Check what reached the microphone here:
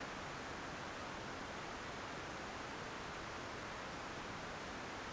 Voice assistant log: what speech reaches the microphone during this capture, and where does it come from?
neither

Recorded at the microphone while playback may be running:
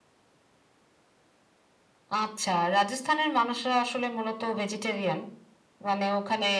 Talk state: echo only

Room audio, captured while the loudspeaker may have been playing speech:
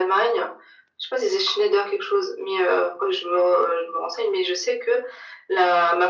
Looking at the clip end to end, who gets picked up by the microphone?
echo only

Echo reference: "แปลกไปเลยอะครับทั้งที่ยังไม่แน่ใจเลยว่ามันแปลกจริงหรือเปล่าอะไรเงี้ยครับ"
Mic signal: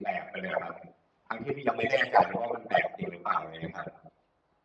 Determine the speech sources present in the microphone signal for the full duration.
echo only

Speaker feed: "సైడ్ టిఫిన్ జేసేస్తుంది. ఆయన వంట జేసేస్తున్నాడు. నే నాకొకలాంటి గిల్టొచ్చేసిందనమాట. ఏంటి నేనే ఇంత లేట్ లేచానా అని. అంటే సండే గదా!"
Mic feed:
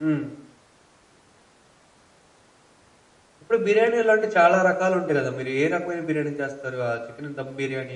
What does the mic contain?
user only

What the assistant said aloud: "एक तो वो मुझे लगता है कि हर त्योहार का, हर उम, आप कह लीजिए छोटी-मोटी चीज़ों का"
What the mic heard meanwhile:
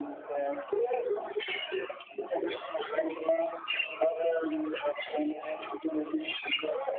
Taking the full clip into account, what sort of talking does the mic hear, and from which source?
echo only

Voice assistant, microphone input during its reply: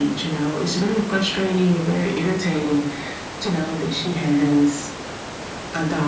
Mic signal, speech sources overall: echo only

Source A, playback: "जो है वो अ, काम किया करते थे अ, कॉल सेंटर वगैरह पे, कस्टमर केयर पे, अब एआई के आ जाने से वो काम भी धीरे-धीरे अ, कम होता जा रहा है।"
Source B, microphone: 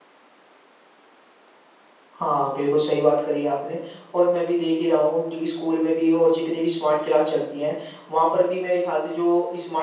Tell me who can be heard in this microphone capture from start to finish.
user only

